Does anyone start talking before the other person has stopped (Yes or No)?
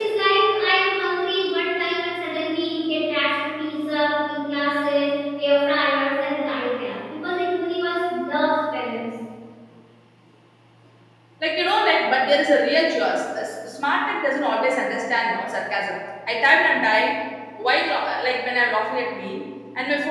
No